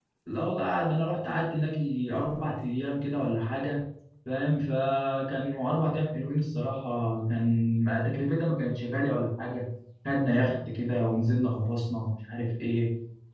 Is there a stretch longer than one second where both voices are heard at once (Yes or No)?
No